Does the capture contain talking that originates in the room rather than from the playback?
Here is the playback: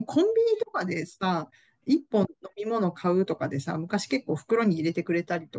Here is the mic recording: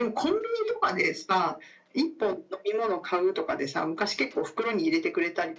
No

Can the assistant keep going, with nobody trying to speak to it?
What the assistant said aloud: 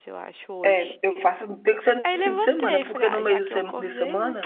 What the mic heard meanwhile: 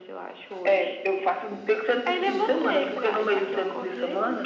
No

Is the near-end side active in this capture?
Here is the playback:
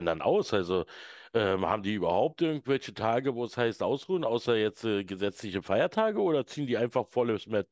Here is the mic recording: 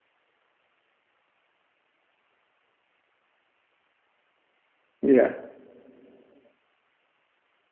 Yes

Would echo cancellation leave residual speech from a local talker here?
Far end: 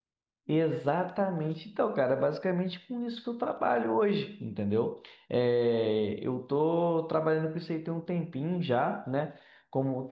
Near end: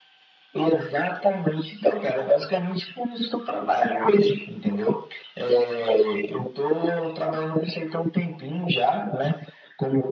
No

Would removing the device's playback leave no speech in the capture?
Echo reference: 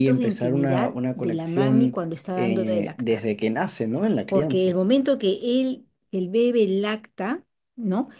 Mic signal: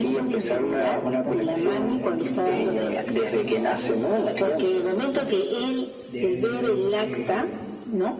No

